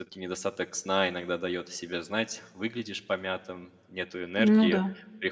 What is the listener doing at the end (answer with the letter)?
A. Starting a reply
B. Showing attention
B